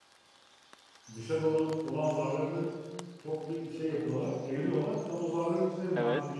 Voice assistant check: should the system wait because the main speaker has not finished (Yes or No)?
Yes